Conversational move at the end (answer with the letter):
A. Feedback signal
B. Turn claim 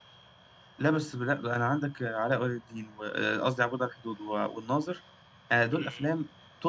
A